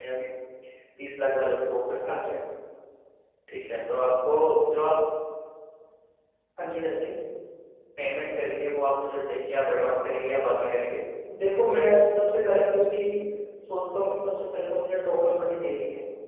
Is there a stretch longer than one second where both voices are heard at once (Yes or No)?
No